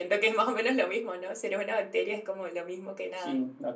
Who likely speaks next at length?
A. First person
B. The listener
B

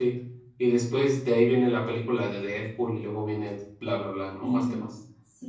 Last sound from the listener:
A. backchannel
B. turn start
B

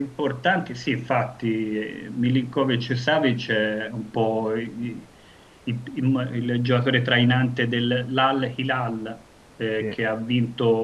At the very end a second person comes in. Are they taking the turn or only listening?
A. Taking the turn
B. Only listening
B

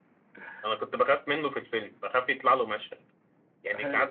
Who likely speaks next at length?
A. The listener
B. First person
B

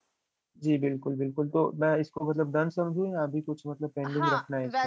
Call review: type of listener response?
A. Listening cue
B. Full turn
B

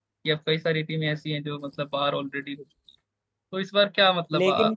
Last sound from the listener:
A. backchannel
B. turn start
A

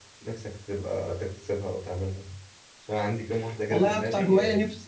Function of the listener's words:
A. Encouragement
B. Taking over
B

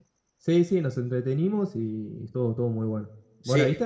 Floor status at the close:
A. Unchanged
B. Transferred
B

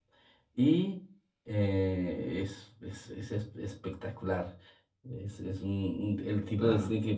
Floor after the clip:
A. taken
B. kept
B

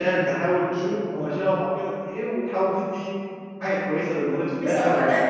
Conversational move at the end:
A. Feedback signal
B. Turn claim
B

